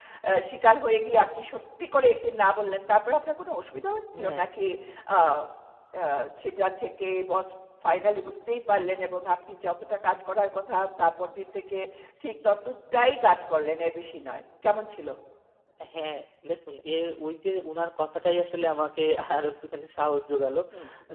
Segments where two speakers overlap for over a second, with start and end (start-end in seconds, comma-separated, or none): none